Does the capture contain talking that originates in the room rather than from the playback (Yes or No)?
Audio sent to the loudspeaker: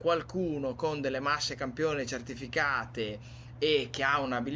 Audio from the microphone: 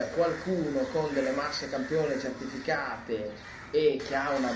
No